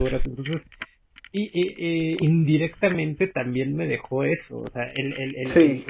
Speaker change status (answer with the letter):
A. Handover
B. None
B